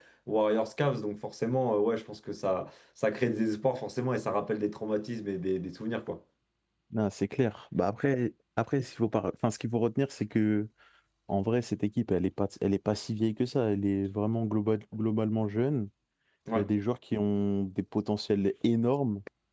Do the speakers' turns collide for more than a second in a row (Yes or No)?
No